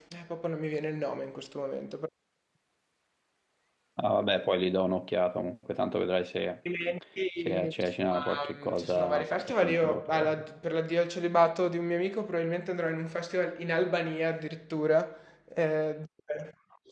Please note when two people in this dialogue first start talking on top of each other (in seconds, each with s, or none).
7.4 s